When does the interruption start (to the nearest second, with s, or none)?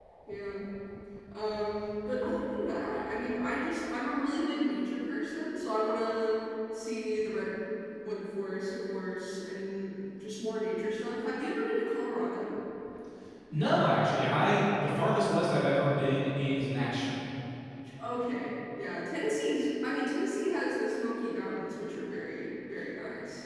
none